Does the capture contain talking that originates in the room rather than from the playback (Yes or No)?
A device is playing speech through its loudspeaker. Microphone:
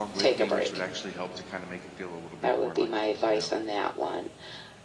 Yes